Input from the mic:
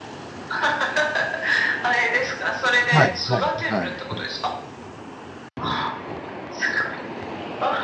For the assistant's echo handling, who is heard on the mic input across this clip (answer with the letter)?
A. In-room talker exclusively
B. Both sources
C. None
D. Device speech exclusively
B